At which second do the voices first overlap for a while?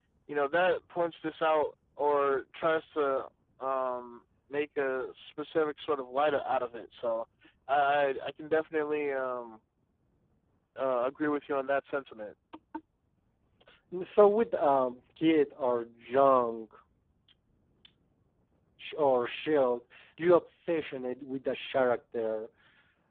none

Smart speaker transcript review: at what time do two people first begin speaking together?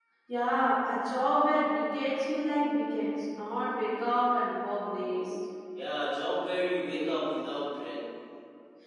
none

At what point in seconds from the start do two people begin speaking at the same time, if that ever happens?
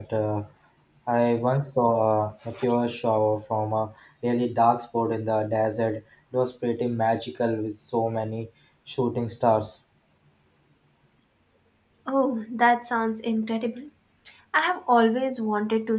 none

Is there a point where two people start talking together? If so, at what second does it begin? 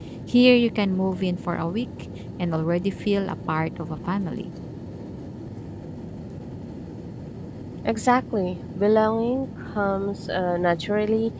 none

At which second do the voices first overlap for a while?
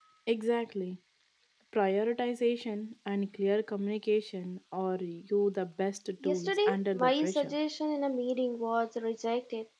6.2 s

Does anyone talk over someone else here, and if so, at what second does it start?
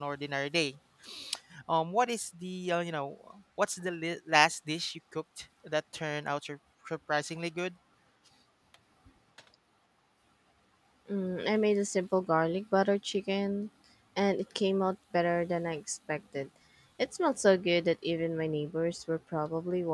none

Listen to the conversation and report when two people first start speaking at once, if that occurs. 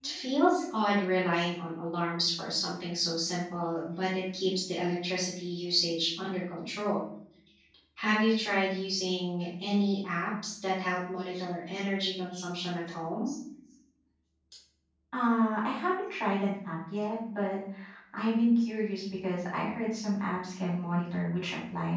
none

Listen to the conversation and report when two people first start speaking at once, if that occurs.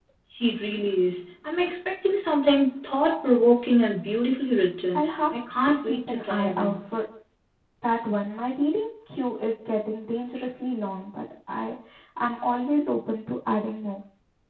4.9 s

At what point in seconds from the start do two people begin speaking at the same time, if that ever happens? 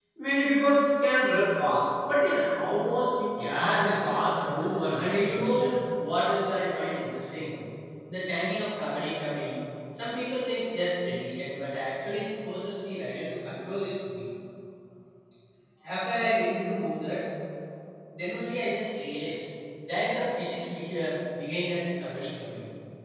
3.4 s

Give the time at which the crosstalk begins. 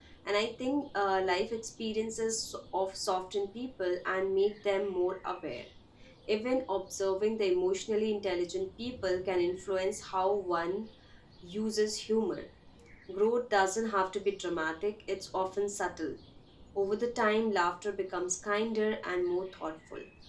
none

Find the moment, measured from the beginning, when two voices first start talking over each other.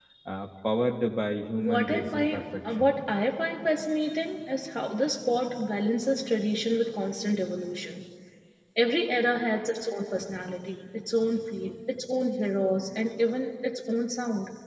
1.6 s

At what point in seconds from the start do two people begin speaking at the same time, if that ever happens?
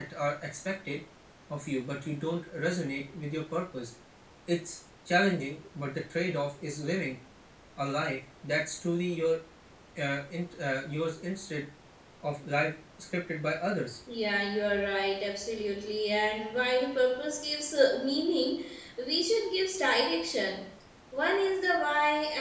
none

